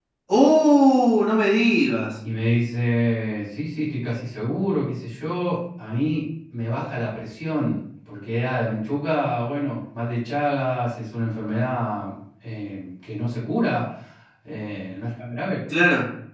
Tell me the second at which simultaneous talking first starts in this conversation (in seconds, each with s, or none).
none